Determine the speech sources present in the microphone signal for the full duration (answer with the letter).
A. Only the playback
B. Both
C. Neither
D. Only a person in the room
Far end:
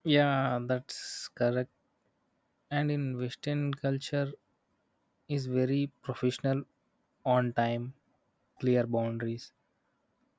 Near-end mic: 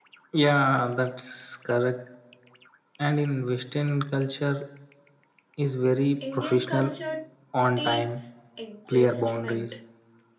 B